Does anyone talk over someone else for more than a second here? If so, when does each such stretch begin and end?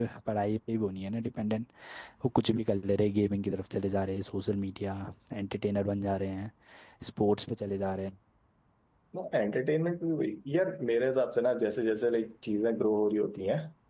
none

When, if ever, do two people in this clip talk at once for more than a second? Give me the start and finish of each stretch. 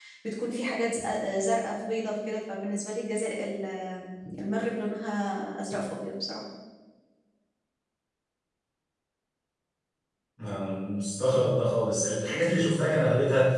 none

